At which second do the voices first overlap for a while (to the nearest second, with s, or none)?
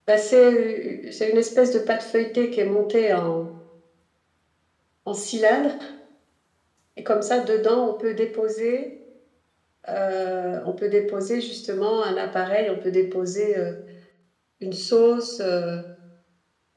none